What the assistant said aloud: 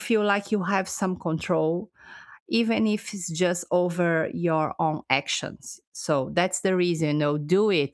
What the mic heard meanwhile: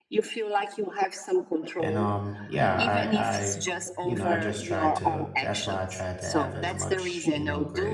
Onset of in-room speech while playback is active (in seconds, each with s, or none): 1.8 s